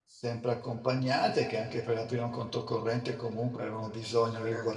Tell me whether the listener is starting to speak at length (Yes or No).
No